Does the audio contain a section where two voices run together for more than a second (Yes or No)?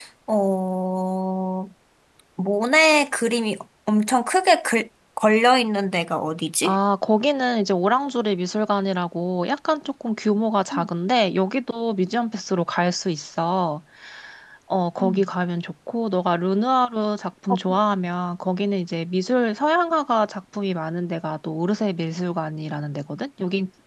No